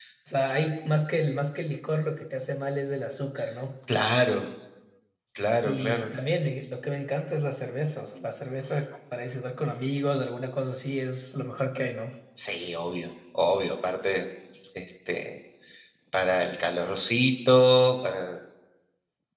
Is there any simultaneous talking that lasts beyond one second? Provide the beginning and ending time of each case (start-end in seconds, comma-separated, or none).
none